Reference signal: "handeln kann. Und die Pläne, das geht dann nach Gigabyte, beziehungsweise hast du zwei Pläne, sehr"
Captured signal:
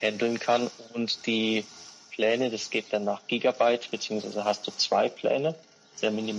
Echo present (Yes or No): Yes